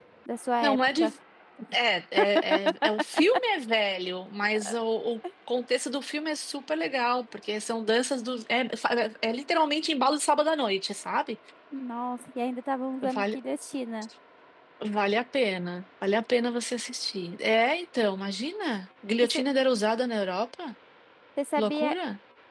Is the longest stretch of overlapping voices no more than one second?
Yes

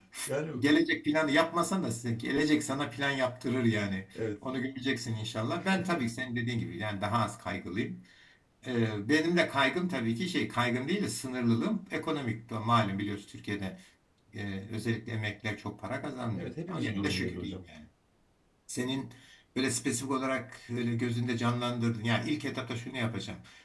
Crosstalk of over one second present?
Yes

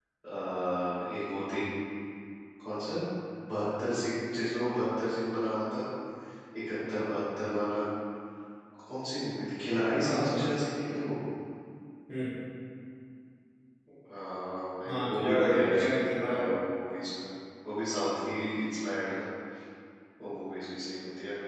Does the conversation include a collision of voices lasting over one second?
Yes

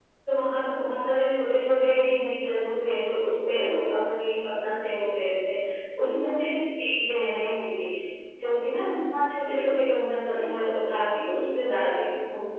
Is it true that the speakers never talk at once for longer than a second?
Yes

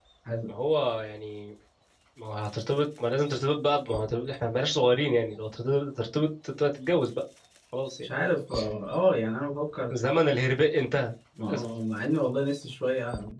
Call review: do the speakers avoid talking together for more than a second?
Yes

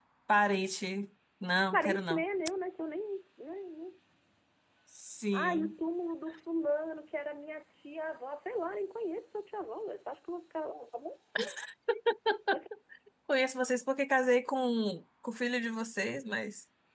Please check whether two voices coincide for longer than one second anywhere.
No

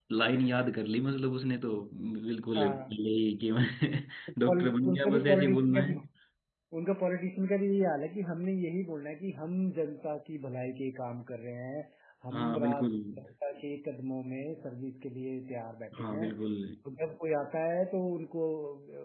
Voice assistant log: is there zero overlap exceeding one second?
No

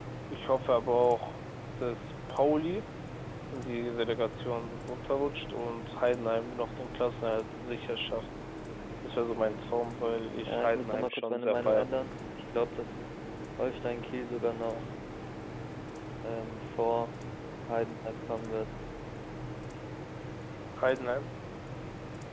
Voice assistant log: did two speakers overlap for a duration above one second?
Yes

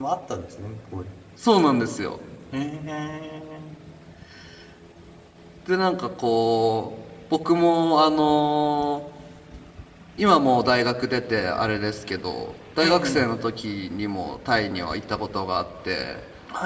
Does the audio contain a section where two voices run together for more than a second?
No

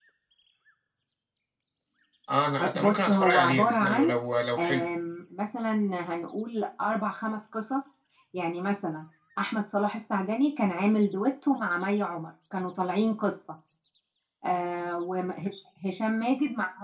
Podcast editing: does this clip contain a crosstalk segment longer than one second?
Yes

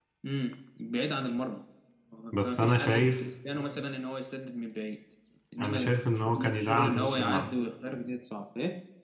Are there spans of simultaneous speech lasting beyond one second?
Yes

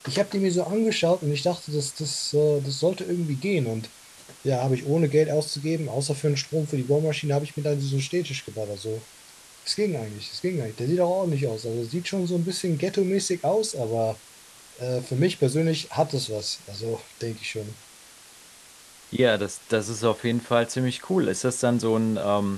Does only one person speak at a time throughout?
Yes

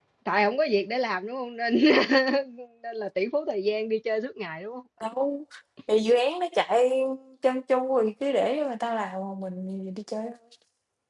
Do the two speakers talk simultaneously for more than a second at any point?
No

